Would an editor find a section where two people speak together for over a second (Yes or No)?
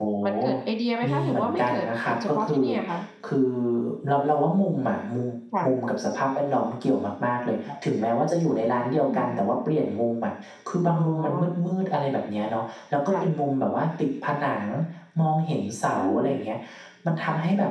Yes